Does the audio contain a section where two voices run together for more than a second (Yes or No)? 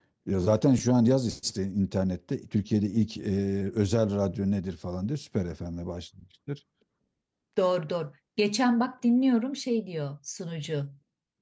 No